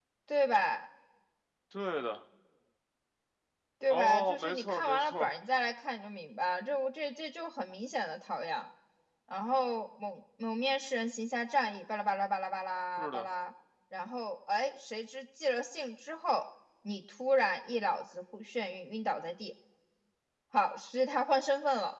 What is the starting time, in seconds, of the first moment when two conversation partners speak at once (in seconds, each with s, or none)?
3.9 s